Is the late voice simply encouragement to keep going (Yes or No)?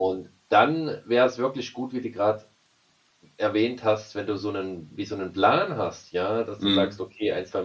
Yes